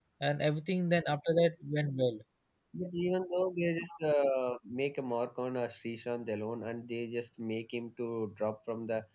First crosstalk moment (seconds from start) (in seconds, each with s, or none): none